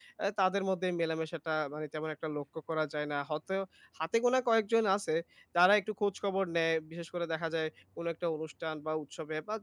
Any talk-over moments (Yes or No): No